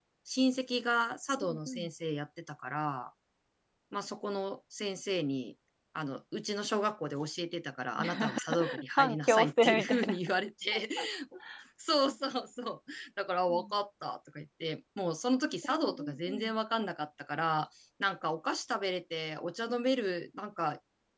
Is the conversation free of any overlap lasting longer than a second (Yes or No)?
No